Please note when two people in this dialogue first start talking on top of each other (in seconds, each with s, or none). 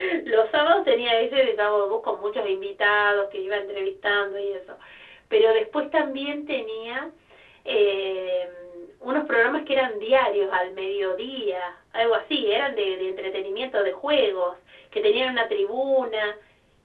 none